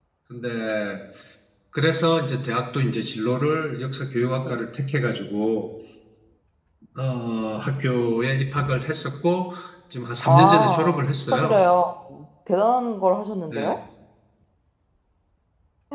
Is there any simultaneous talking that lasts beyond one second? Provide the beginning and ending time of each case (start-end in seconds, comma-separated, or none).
10.2-11.6